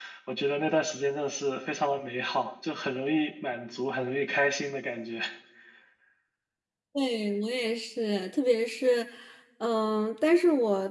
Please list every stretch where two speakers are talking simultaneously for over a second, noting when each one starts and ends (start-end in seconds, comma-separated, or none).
none